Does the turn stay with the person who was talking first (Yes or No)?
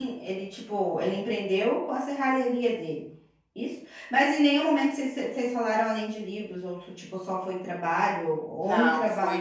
No